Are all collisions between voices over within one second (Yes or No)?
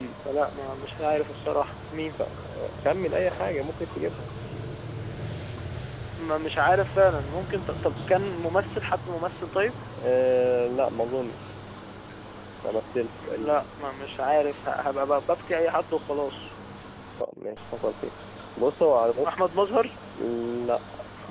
Yes